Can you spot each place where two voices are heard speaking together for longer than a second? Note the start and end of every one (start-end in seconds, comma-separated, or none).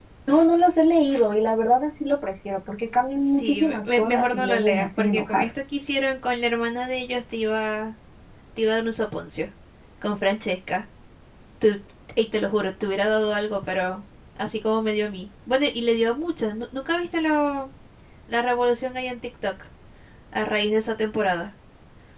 3.3-5.5